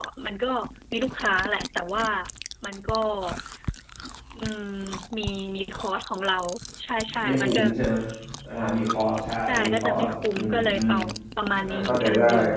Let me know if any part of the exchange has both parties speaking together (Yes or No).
Yes